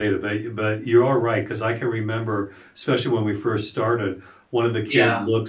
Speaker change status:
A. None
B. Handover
A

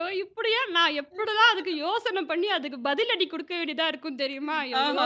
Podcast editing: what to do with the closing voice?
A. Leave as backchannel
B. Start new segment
B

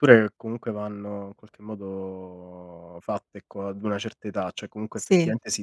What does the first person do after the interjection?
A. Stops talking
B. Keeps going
B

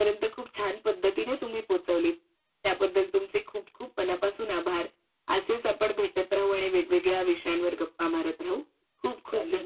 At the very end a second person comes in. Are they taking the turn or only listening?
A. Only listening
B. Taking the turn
B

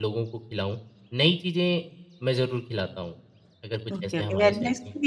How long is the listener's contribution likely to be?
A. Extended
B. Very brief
A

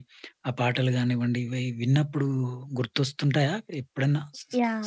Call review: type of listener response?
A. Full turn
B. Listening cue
A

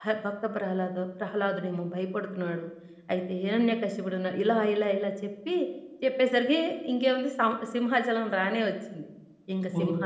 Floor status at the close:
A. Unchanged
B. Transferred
A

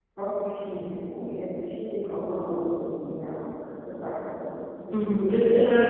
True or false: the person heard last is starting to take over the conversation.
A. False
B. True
B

